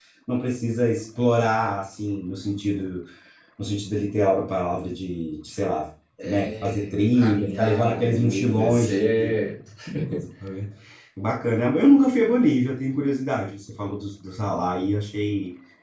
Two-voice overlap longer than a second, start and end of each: 6.2-9.3

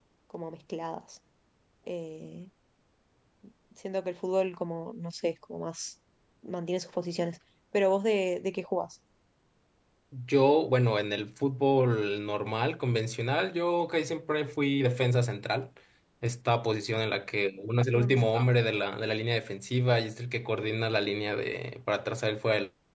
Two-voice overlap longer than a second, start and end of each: none

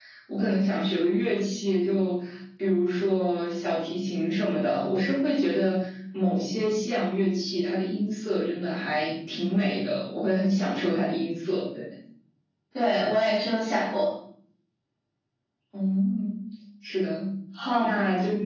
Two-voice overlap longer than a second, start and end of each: none

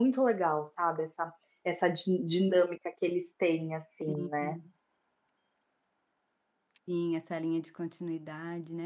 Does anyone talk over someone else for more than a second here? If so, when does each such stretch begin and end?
none

